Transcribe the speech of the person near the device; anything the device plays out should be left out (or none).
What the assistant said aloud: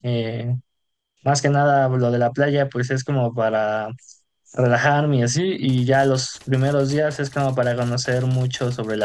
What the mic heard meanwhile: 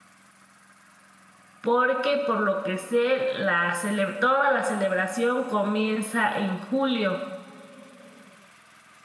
porque por lo que sé, la cele- toda la celebración comienza en julio.